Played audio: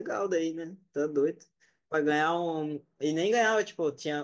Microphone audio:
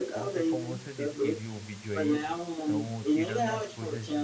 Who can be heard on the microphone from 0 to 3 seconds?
both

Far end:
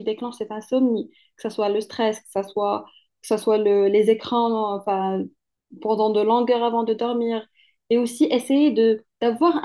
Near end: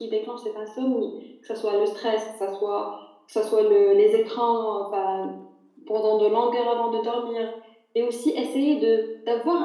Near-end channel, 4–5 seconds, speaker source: echo only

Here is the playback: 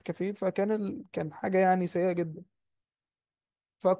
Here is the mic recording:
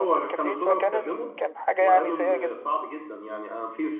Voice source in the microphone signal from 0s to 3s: both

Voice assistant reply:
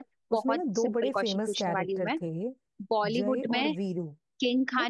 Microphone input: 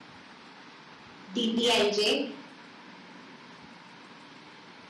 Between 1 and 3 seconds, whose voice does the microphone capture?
user only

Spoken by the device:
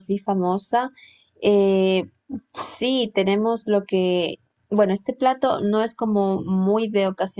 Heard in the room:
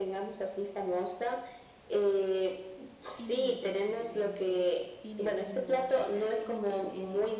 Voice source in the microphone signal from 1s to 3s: echo only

